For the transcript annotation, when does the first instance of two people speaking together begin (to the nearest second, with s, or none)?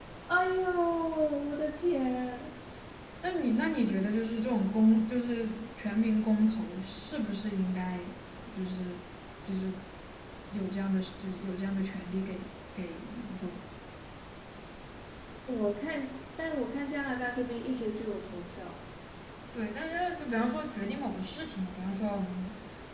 none